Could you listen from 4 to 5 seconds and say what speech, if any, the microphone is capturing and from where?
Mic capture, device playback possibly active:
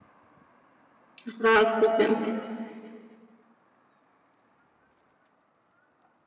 neither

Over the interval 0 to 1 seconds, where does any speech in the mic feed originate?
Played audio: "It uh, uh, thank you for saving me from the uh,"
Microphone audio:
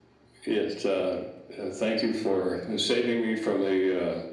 echo only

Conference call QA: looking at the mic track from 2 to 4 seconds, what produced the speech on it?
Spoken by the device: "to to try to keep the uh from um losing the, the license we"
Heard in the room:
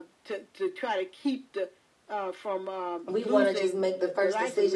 both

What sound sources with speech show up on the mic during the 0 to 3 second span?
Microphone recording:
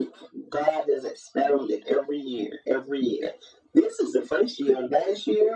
echo only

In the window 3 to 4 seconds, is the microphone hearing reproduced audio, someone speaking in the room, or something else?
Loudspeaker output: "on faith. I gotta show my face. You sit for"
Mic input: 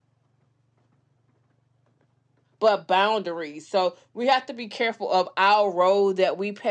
user only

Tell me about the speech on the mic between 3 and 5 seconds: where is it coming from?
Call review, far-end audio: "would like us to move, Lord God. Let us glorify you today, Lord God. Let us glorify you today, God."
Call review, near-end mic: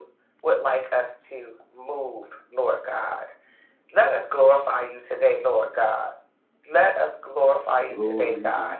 echo only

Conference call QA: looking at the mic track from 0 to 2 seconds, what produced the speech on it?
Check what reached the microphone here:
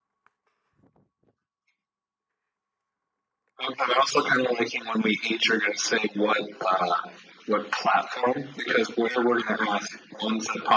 neither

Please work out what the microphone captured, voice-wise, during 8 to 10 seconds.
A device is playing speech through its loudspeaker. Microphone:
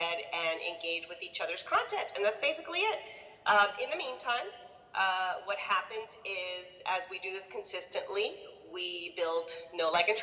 echo only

